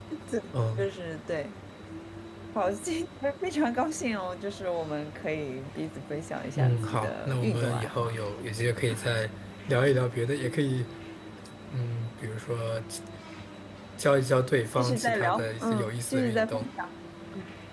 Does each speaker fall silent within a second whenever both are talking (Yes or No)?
No